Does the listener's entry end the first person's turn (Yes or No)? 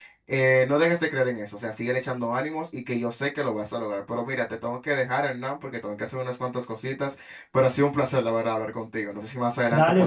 Yes